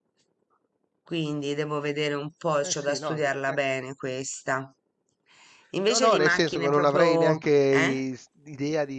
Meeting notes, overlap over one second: present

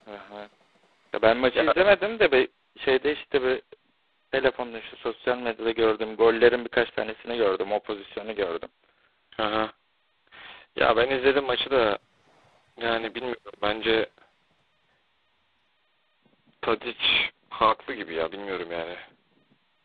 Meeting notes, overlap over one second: none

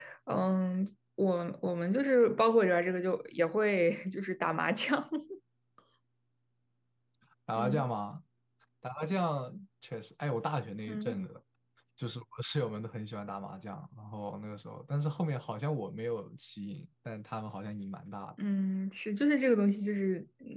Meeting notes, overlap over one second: none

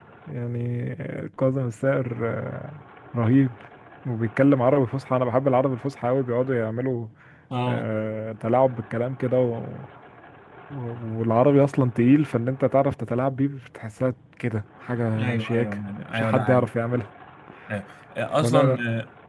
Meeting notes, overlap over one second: none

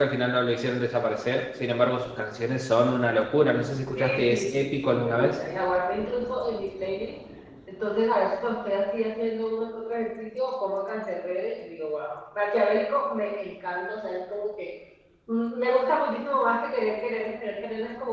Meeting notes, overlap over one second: present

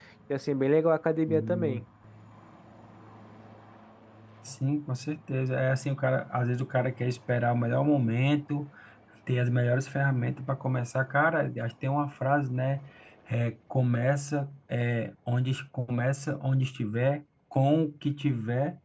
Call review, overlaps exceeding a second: none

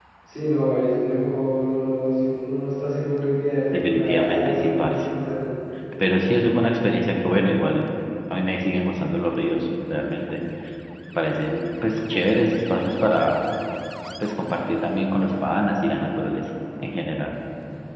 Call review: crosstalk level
present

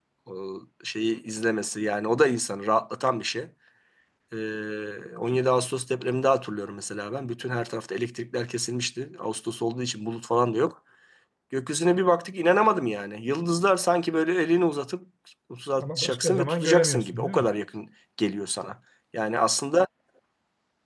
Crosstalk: present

